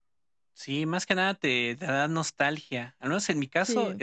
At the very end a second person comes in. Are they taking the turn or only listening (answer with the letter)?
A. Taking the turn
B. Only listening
B